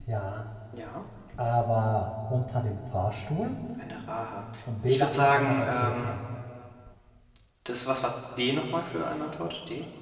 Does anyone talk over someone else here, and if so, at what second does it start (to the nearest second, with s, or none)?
5 s